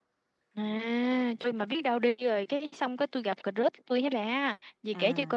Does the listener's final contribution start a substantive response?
No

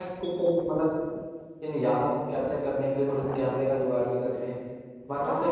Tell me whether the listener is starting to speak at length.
Yes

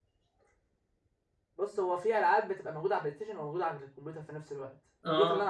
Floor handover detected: No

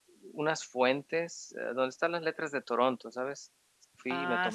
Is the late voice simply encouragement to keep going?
No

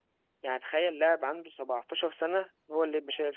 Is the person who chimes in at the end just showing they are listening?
No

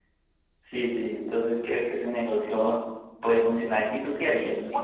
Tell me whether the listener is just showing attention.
No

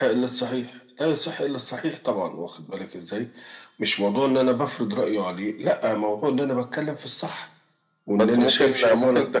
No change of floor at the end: No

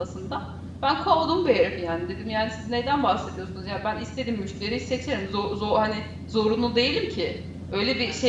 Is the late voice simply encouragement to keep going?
Yes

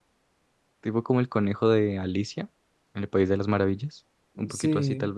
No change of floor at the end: No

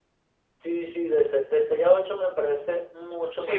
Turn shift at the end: Yes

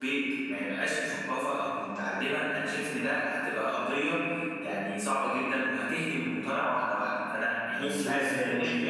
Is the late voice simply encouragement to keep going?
No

